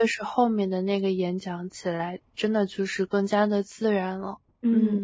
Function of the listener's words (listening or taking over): taking over